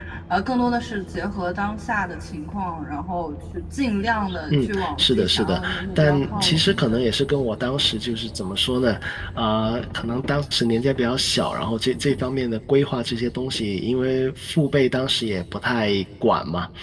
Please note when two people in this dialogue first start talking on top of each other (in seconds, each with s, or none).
4.5 s